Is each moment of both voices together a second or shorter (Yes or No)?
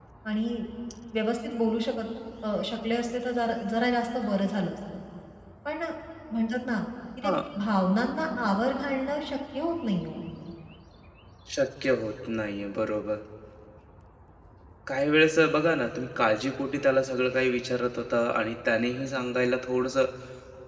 Yes